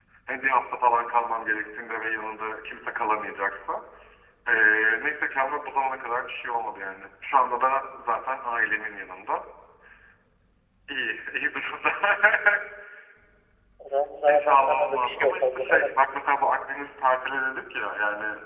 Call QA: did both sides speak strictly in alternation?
No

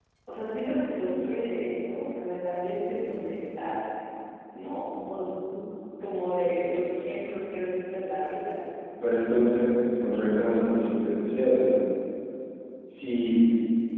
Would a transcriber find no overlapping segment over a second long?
Yes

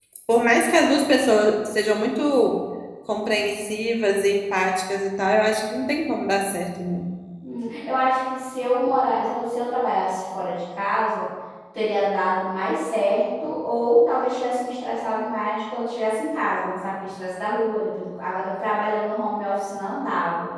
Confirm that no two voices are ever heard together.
Yes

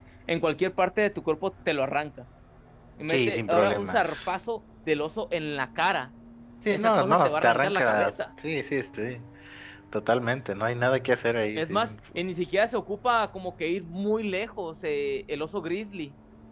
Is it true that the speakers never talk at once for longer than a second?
No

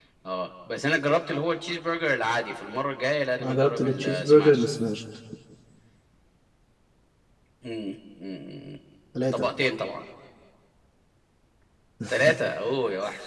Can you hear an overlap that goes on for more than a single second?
Yes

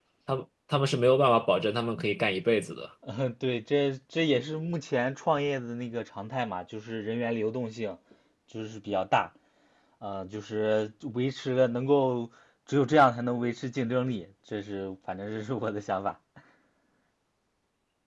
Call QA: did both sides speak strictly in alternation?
Yes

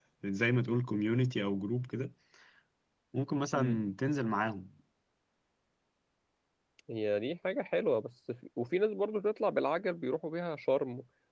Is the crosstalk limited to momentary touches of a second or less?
Yes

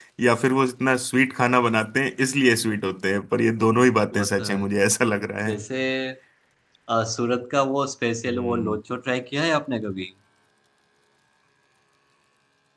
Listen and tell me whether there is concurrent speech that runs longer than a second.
No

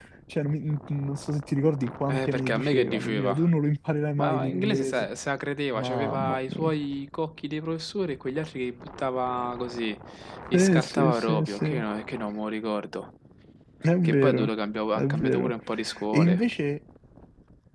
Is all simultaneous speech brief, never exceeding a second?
No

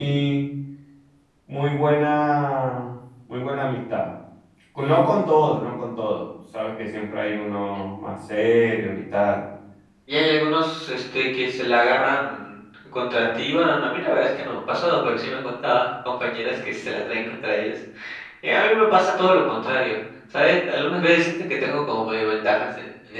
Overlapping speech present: No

